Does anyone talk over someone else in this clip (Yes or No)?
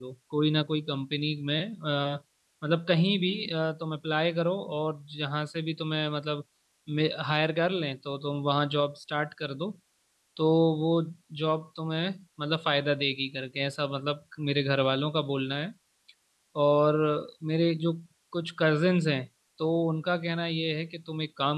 No